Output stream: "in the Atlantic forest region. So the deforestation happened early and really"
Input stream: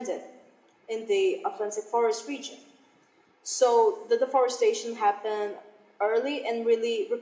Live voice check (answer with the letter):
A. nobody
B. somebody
A